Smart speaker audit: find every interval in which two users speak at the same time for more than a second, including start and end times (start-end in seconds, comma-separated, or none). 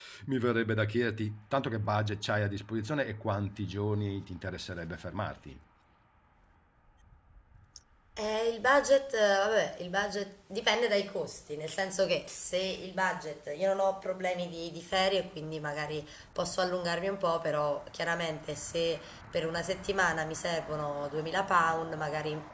none